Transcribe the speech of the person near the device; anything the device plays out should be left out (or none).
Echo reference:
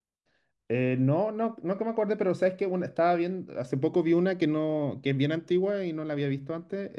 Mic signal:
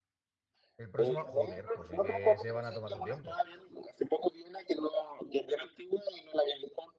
El próximo, joder, pues sí que se van a tomar su tiempo.